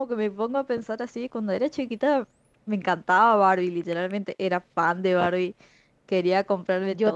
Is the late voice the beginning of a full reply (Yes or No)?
No